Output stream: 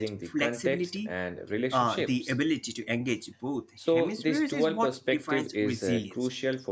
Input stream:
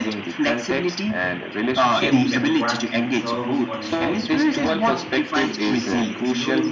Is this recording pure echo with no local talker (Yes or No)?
No